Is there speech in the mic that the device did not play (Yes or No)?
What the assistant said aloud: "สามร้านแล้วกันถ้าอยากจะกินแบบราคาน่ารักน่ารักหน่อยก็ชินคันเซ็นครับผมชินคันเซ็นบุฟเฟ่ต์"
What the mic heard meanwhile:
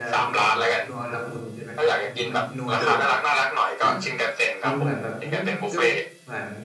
Yes